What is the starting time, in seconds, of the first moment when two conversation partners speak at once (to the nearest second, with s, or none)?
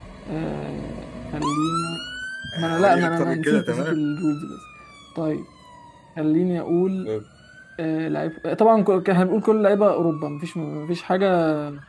3 s